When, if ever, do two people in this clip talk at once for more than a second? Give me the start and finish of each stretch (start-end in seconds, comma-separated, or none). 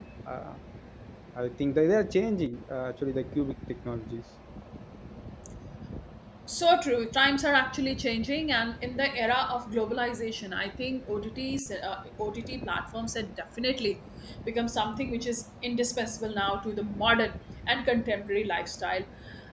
none